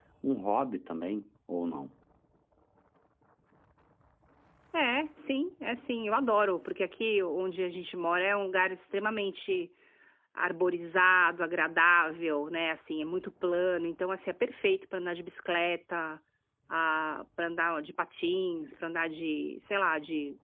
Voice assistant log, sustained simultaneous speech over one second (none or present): none